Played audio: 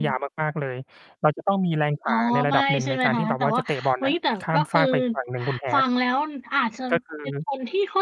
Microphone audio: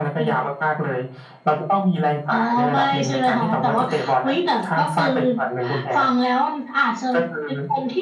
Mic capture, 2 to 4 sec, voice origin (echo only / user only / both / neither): echo only